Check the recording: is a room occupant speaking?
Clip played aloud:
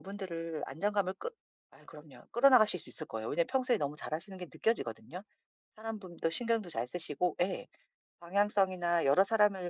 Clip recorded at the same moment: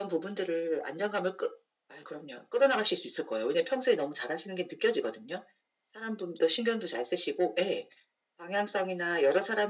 No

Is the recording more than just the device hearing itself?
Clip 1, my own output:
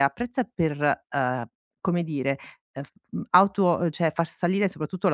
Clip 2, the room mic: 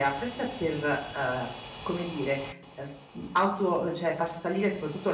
No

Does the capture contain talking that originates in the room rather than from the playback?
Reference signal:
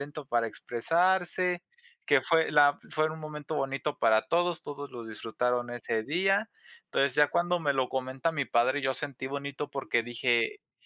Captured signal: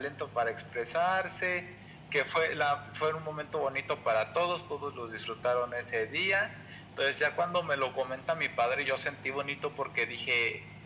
No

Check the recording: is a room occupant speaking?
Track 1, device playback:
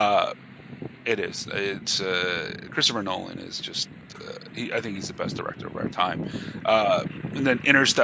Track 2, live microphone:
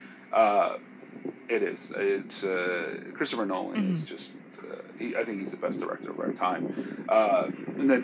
Yes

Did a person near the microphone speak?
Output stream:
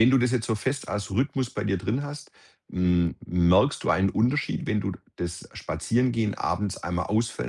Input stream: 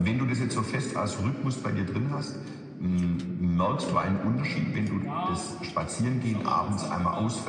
Yes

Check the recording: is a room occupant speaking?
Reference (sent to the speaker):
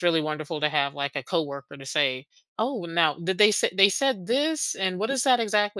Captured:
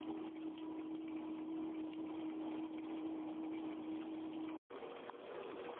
No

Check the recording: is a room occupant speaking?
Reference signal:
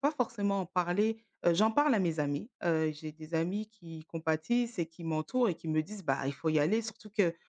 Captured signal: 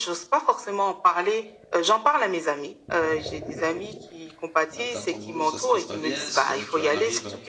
Yes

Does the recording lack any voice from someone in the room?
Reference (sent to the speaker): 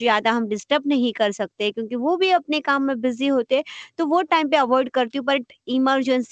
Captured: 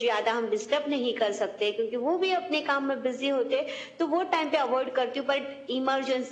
Yes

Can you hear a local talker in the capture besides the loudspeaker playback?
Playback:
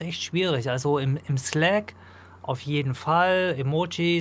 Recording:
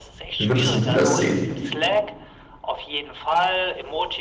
Yes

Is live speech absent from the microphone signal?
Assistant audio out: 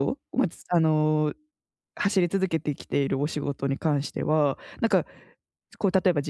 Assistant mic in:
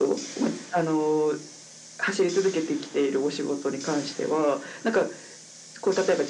Yes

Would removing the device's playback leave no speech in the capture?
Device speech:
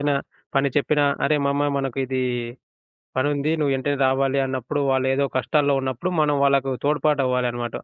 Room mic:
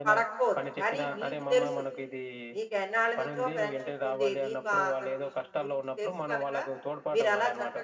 No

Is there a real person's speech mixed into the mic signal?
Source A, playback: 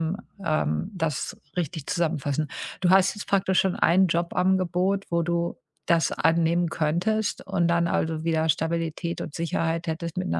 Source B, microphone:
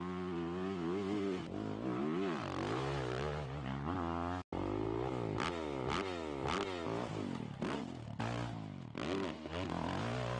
No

